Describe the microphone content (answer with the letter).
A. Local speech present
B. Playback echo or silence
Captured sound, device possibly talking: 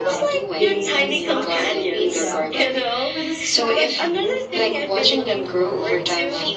A